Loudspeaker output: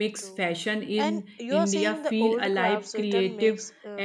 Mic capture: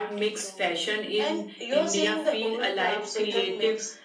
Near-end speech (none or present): none